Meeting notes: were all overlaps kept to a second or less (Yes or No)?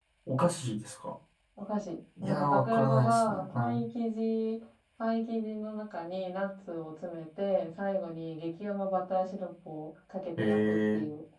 No